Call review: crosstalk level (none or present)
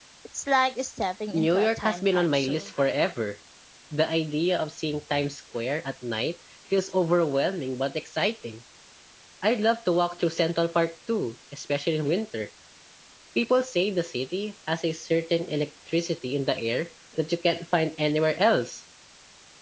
present